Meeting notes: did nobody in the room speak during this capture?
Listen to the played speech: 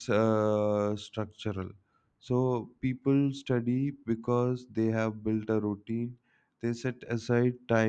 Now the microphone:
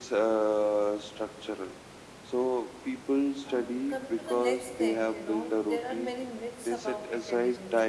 No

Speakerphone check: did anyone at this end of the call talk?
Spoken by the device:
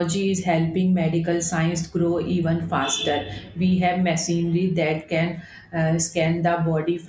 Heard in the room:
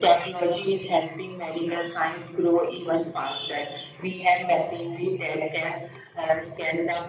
No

